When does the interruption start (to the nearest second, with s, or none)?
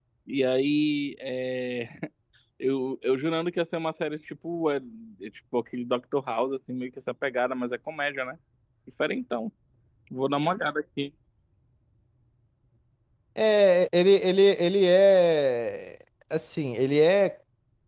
none